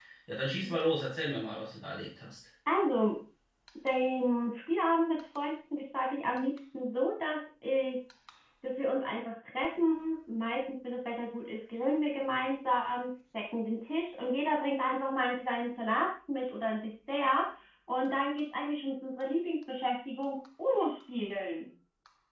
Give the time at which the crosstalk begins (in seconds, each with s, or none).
none